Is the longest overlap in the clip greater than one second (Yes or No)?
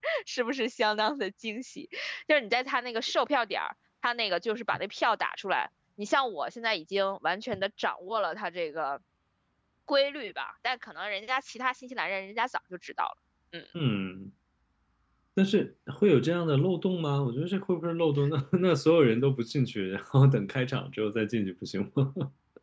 No